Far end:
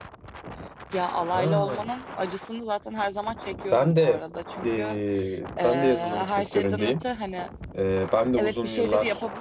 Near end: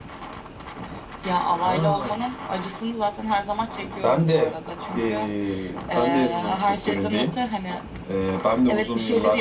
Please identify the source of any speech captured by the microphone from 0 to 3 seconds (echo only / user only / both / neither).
echo only